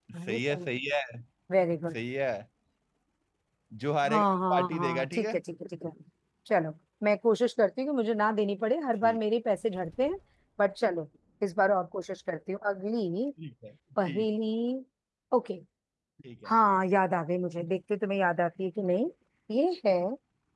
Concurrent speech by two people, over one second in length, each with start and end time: 4.1-5.4

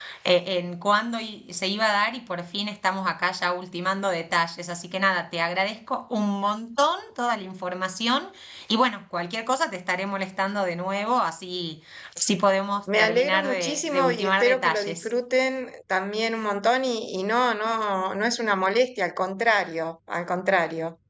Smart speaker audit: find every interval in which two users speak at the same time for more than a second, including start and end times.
13.0-15.1

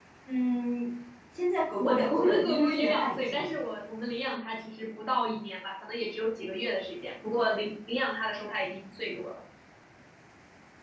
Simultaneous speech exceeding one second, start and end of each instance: 1.8-3.5

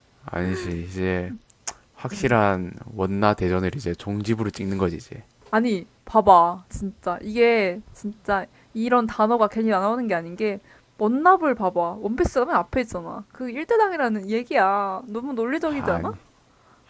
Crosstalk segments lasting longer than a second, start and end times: none

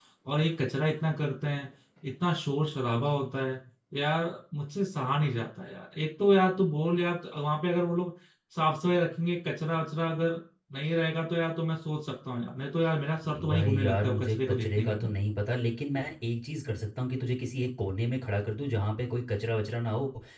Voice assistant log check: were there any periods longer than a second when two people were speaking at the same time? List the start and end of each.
13.5-14.9

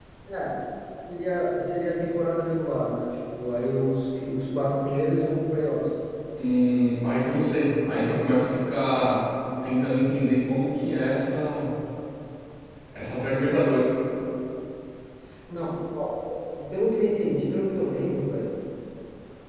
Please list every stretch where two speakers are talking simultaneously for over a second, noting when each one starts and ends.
none

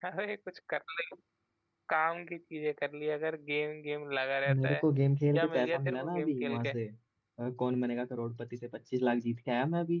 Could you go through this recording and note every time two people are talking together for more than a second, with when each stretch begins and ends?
5.3-6.7

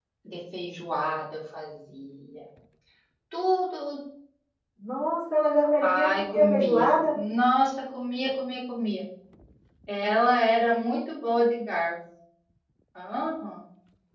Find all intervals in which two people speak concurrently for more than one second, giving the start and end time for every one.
5.8-7.2

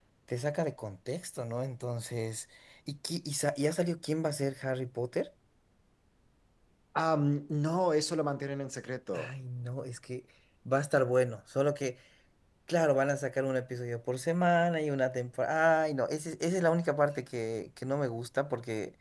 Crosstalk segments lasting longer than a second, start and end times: none

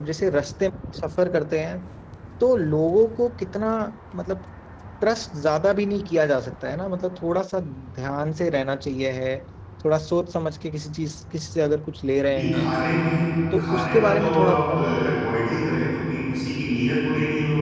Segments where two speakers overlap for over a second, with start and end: 13.6-14.8

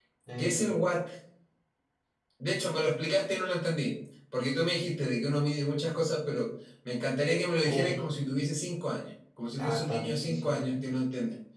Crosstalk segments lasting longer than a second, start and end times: 9.6-10.8

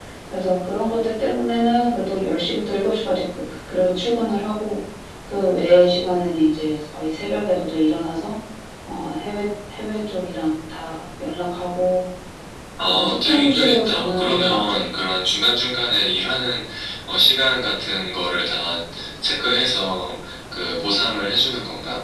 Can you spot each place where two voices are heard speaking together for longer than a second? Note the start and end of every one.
12.8-14.8

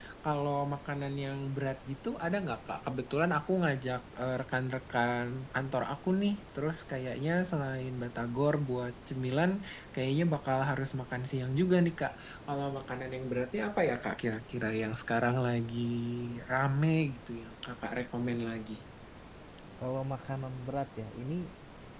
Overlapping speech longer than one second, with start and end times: none

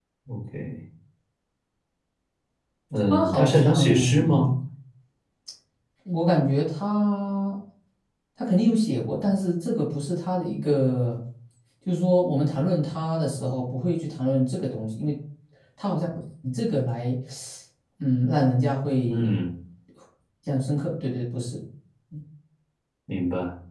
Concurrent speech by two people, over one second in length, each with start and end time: 3.1-4.4

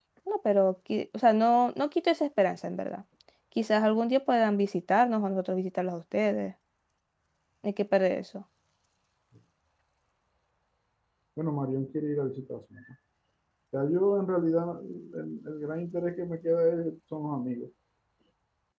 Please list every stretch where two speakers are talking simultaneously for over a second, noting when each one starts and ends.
none

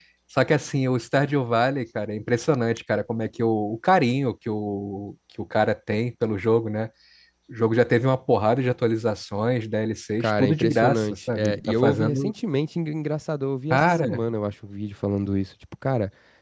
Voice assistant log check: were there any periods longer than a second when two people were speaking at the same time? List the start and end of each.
10.2-12.3

